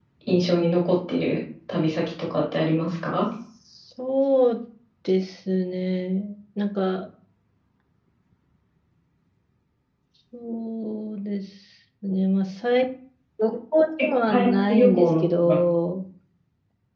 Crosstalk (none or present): present